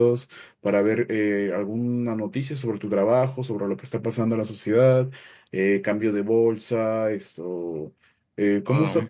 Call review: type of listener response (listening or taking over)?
listening